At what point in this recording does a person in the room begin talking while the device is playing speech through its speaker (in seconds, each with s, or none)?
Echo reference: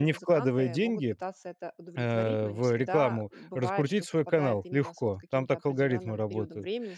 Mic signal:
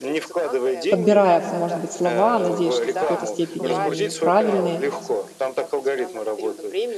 0.9 s